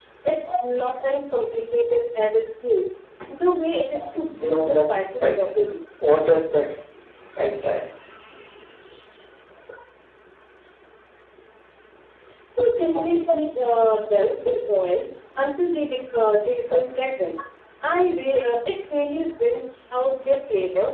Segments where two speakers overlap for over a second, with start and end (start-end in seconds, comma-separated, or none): 4.3-5.6